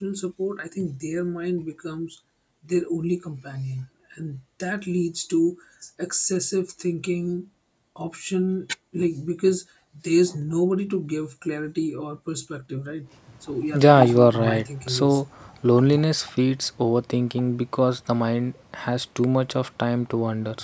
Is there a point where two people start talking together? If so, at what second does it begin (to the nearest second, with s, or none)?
14 s